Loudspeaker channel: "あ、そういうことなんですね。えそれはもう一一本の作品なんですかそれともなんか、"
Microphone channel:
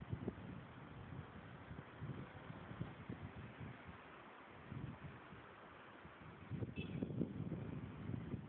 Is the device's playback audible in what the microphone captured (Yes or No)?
No